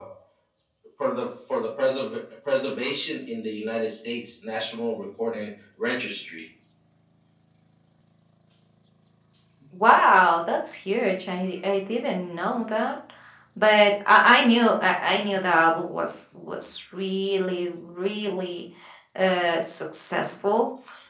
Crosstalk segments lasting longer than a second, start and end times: none

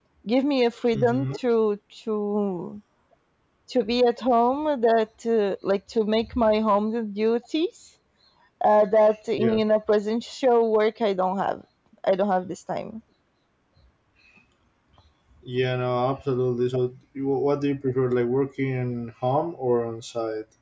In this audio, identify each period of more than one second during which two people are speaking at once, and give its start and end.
none

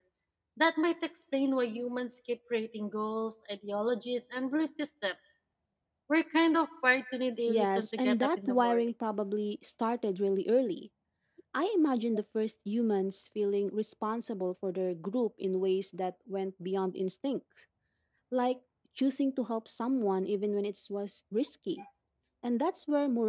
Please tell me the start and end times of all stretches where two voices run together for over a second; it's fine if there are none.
7.5-8.8

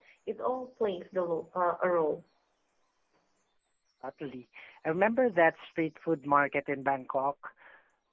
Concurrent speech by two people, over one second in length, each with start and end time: none

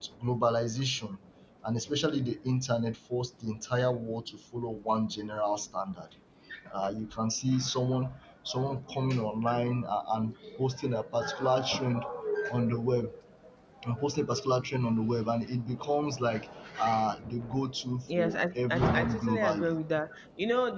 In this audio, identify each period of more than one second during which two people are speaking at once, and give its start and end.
18.1-19.8

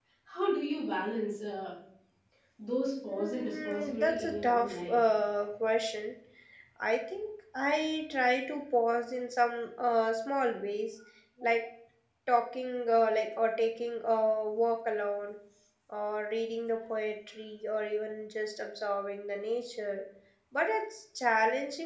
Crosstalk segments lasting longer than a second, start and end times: 3.1-5.0

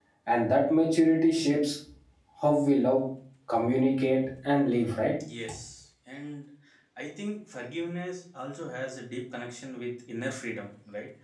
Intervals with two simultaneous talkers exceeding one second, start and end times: none

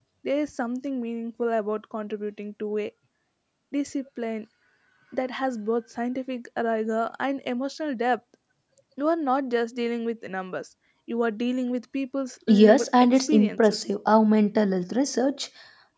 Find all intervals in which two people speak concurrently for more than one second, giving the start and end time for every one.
12.5-13.8

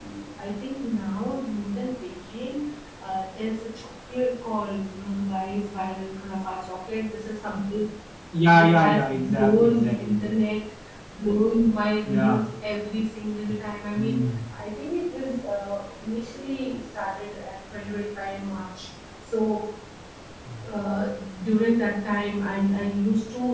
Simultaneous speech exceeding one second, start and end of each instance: 8.4-10.3

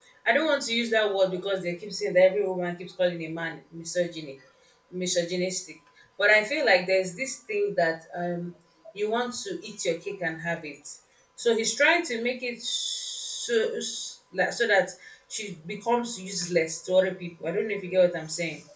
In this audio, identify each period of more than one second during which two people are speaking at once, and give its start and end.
none

